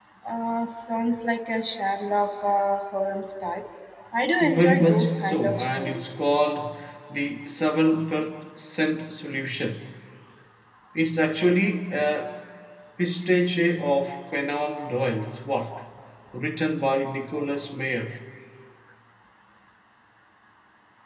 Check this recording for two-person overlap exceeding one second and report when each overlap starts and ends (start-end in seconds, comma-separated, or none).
4.4-6.0